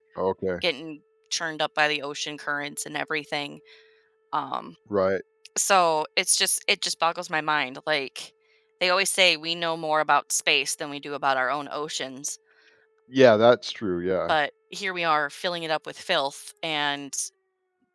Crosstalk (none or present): none